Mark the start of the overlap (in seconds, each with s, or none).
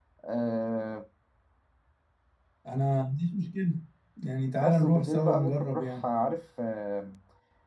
4.6 s